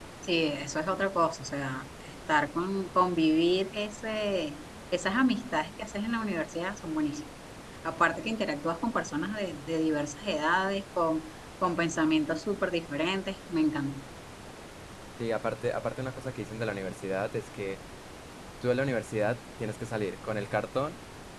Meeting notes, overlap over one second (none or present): none